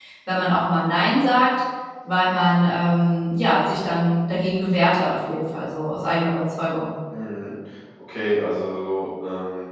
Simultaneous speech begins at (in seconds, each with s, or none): none